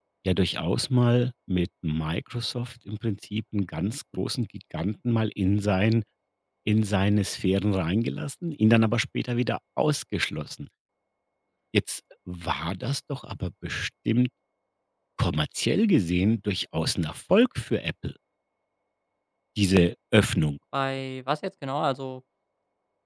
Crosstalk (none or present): none